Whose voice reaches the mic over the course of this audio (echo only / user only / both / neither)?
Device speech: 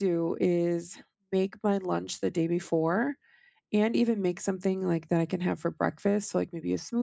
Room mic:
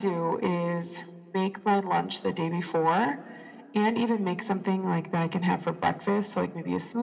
echo only